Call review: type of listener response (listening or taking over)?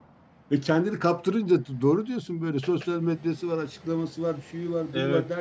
listening